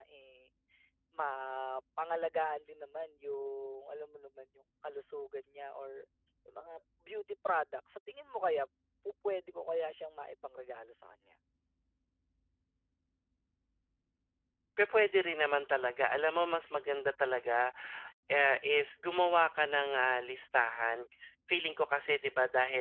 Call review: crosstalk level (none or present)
none